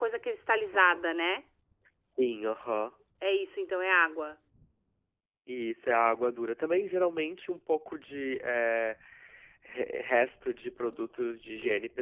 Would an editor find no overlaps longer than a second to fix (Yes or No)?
Yes